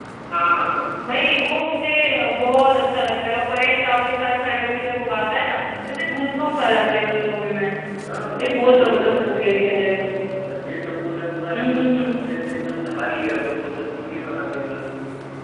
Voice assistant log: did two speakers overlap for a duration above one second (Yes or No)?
Yes